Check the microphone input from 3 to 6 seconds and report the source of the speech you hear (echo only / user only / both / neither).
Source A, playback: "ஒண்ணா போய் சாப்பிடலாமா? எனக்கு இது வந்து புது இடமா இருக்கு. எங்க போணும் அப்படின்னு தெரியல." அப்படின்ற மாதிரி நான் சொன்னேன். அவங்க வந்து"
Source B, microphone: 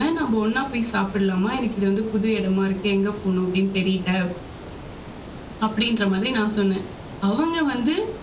echo only